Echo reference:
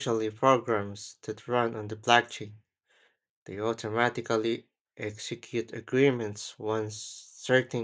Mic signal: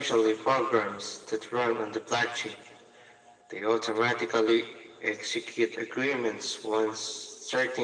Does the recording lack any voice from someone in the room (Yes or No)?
Yes